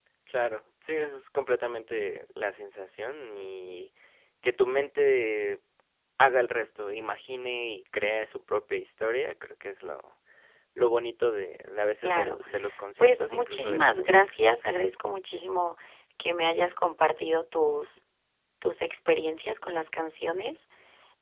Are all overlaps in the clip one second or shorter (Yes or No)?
No